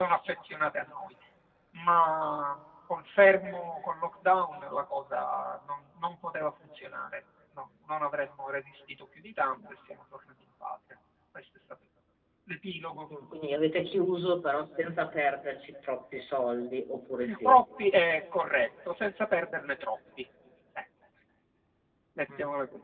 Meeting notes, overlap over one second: none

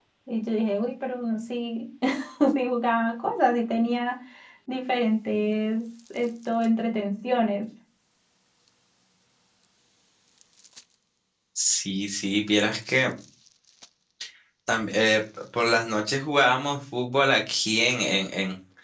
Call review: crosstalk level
none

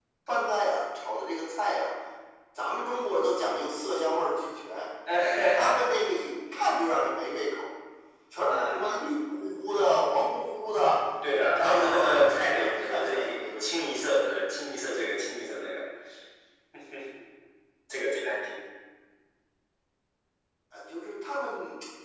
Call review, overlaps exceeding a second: present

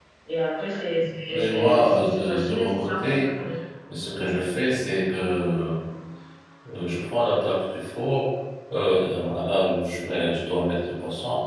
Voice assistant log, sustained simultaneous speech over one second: present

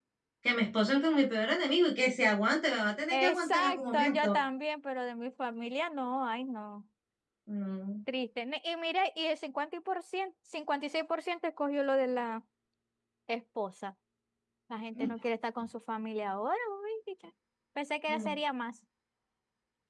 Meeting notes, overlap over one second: present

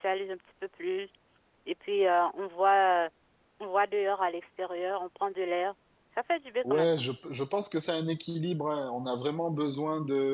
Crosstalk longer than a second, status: none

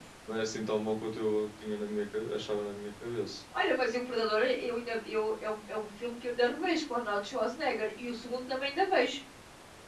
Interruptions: none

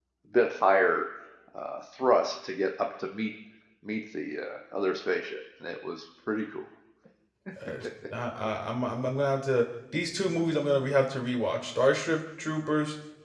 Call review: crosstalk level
none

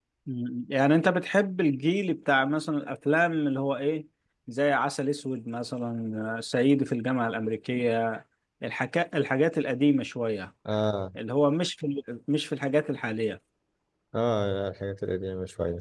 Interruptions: none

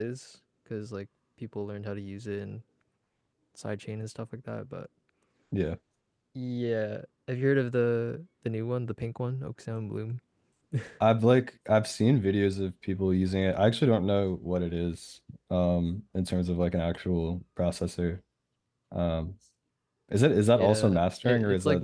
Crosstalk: present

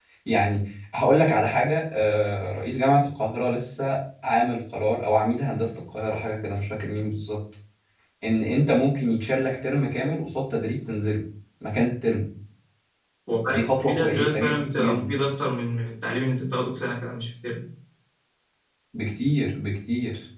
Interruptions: present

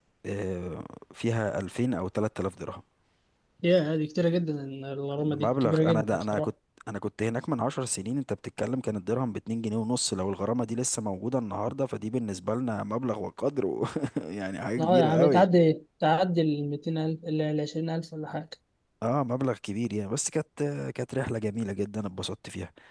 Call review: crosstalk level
present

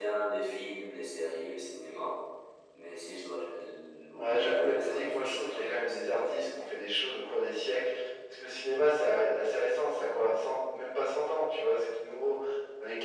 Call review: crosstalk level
present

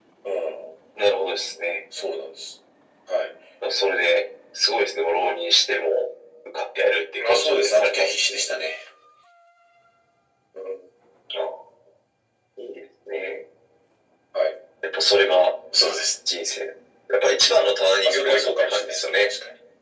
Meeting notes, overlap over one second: present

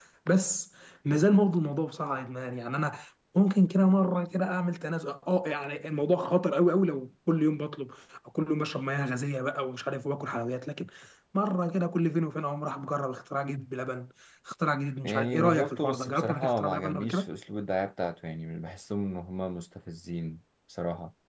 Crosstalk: present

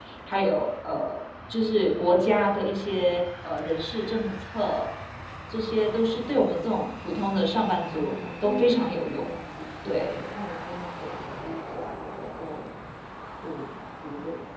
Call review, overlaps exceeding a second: present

